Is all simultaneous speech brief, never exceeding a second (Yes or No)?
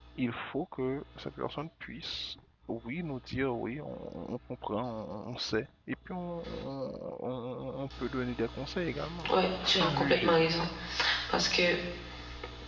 No